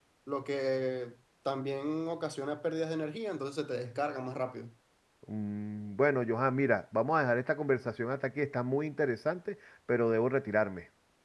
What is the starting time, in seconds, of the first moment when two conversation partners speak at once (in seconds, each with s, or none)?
none